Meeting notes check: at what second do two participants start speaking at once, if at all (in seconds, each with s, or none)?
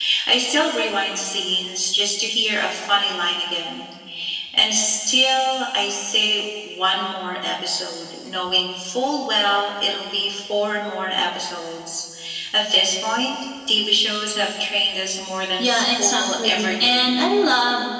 15.6 s